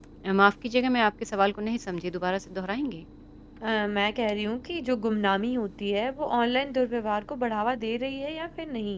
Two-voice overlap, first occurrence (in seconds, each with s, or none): none